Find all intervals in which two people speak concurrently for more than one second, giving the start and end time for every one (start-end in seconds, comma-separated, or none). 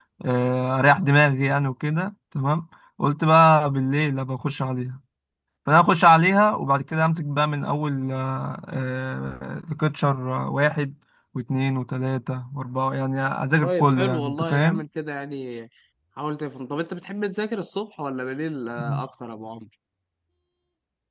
13.6-14.8